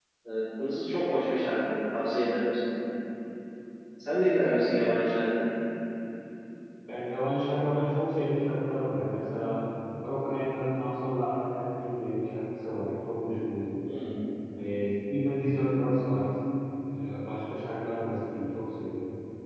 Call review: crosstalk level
none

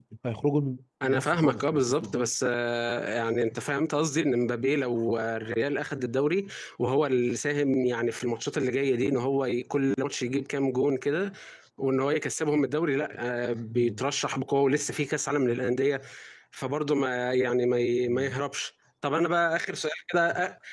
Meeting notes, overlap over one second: present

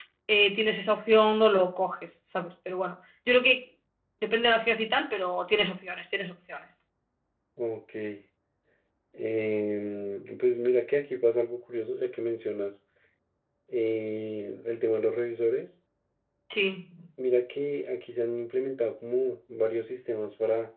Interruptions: none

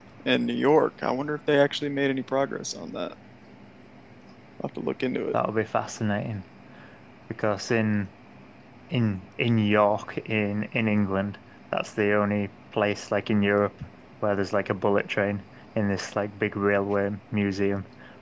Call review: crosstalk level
none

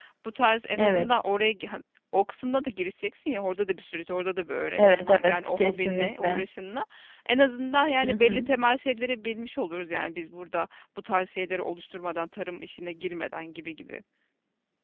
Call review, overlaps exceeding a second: present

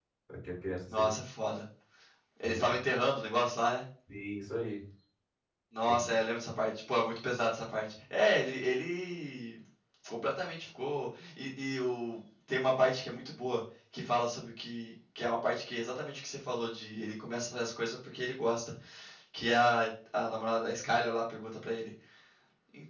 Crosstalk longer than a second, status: none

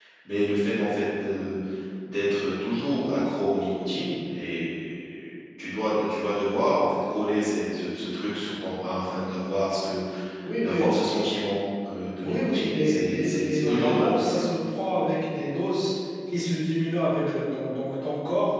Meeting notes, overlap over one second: present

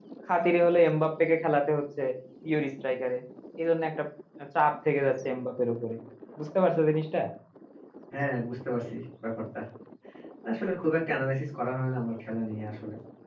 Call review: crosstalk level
none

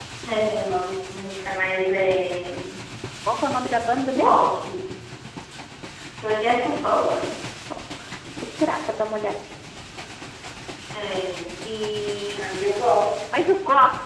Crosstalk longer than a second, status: none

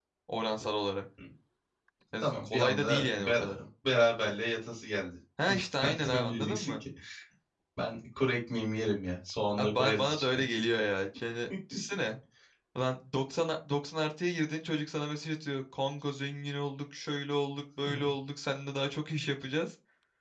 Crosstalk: present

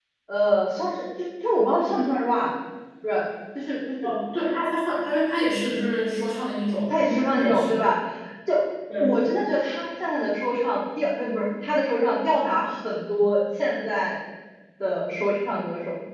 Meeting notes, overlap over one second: none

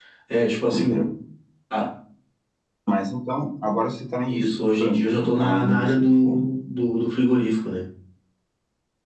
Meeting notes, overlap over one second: present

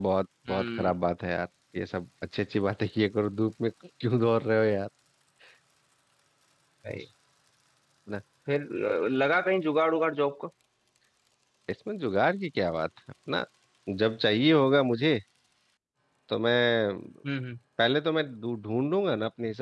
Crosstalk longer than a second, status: none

